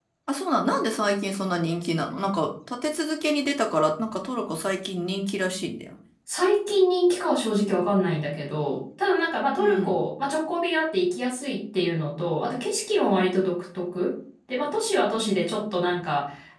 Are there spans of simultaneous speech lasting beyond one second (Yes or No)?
No